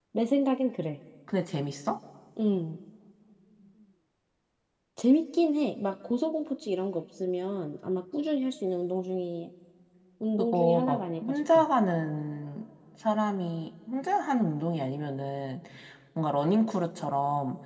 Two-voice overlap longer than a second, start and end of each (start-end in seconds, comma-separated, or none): 10.4-11.6